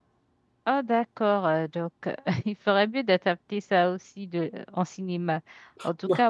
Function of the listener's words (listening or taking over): listening